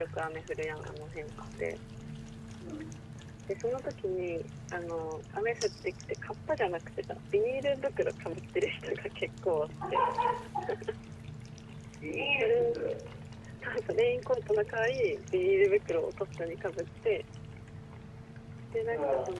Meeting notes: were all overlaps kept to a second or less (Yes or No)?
Yes